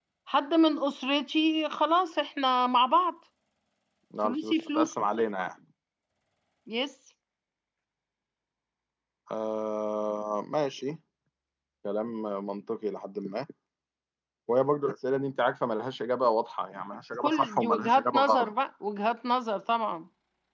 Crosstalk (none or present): present